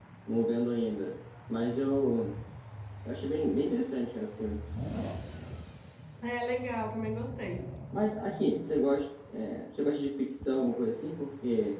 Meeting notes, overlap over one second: none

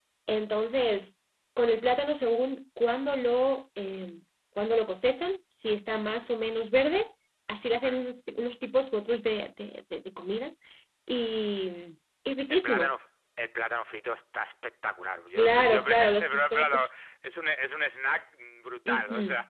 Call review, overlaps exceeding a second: present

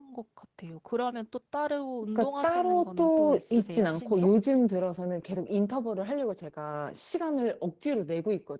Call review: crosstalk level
present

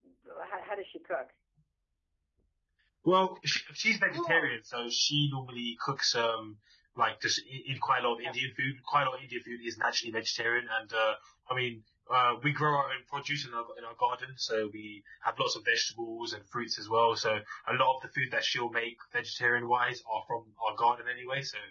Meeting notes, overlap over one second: none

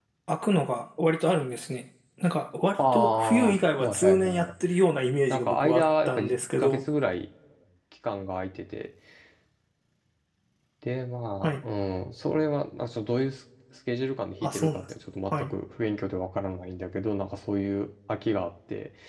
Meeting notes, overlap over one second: present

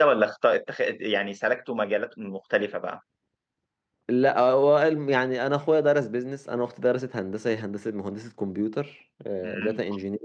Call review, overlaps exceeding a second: none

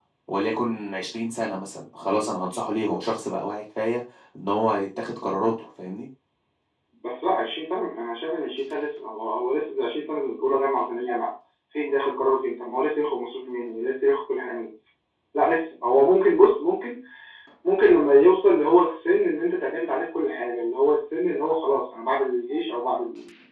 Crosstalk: none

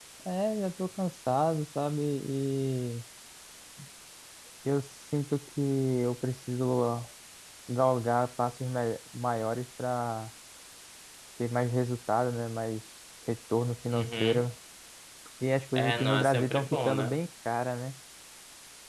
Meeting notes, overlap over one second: present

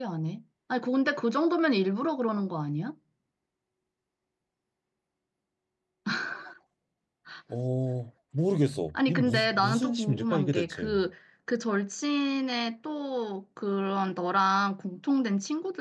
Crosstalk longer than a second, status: present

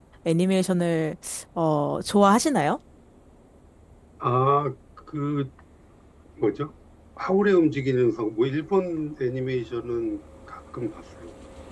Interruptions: none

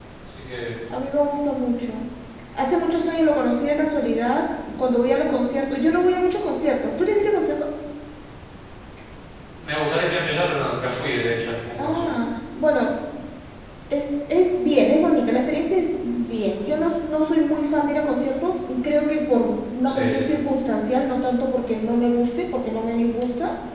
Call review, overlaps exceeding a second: none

